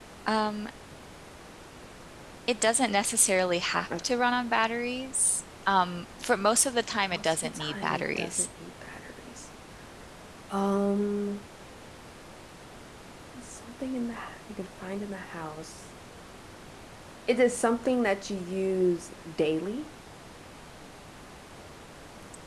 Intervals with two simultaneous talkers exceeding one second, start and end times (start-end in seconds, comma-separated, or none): 7.1-8.5